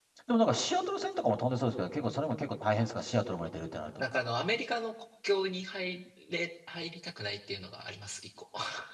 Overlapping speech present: No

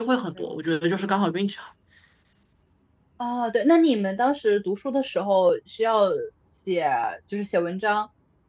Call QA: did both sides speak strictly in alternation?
Yes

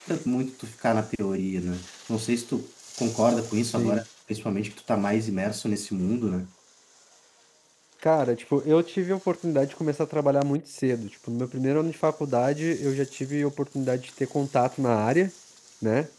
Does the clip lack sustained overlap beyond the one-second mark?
Yes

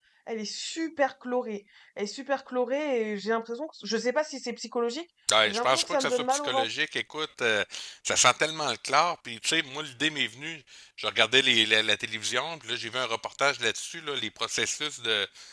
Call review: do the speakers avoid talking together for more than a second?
No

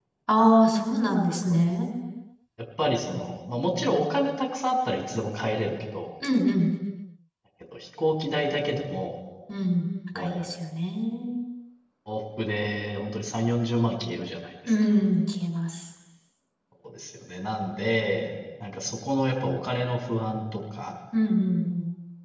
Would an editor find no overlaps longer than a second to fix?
Yes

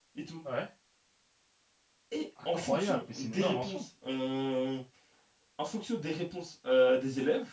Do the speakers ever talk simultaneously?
Yes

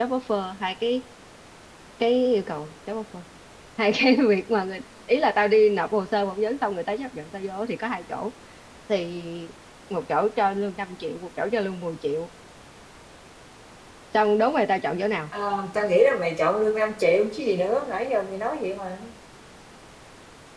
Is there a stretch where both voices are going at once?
No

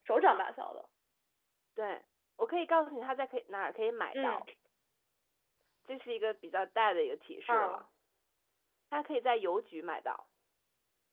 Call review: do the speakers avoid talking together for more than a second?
Yes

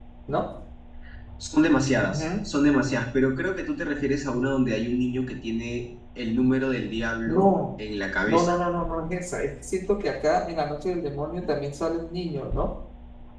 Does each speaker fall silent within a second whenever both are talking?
Yes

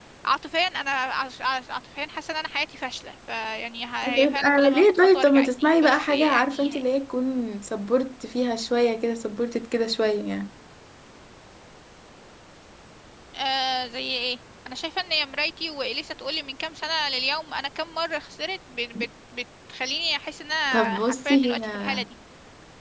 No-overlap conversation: No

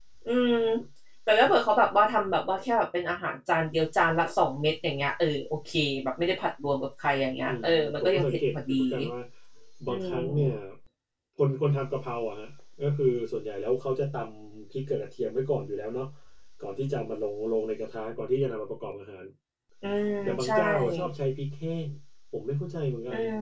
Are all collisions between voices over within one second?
No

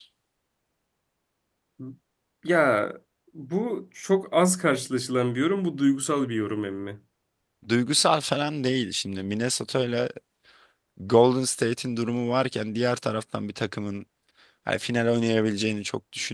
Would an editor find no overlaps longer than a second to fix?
Yes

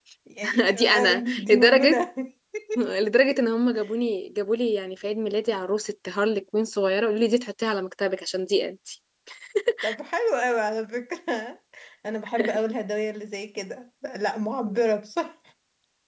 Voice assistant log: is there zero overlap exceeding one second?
No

